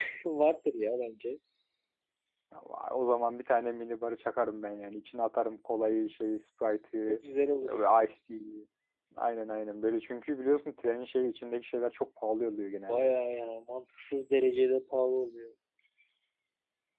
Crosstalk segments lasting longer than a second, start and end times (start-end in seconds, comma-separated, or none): none